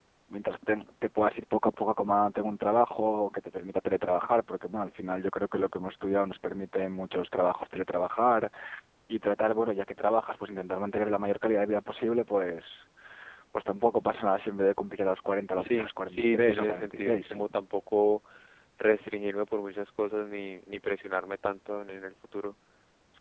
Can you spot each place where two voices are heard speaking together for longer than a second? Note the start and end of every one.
15.6-17.3

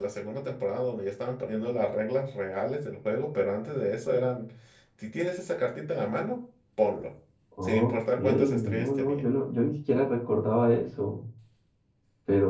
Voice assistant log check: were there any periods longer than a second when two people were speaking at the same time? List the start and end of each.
7.6-9.2

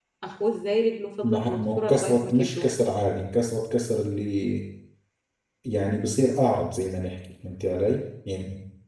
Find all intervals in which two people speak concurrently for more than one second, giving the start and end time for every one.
1.2-2.7

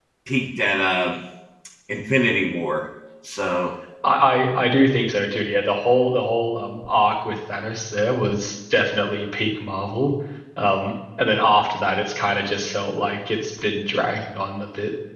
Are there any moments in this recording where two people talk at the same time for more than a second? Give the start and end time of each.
none

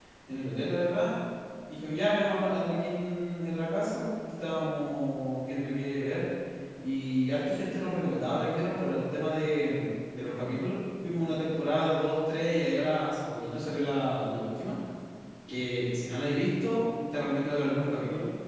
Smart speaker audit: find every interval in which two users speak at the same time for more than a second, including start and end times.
none

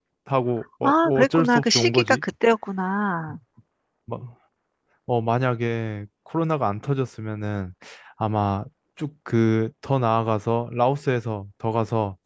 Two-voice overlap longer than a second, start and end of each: 0.8-2.2

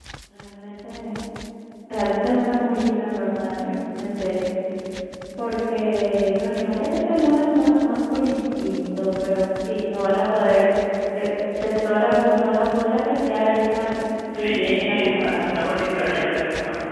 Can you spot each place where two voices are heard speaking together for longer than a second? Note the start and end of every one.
14.3-15.6

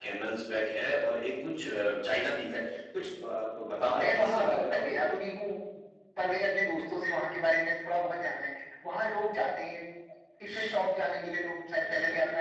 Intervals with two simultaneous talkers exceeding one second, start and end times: 3.8-5.2

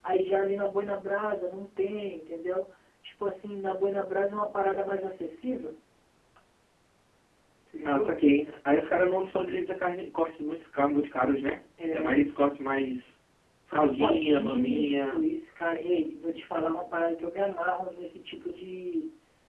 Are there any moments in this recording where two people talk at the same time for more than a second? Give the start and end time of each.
13.8-15.2

